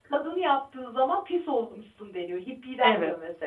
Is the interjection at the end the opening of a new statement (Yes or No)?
Yes